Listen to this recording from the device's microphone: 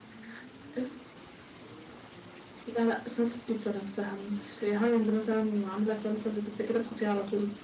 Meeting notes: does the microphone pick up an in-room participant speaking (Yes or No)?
No